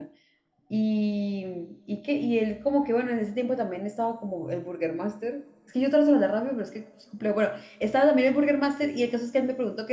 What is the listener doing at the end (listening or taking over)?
listening